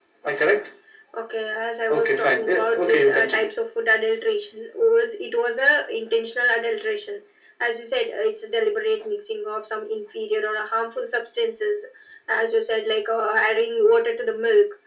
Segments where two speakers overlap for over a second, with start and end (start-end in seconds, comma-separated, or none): 1.9-3.5